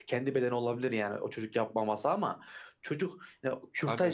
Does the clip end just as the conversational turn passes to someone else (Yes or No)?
No